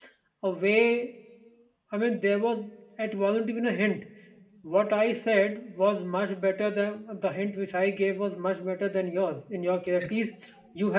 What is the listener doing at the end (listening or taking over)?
listening